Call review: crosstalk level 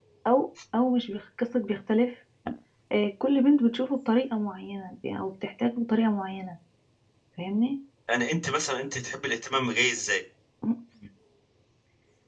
none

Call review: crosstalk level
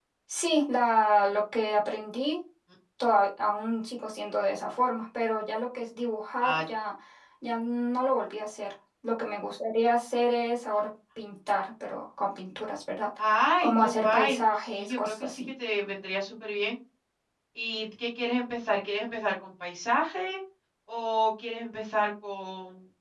present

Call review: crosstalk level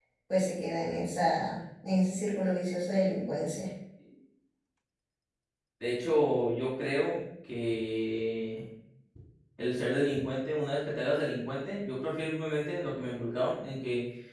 none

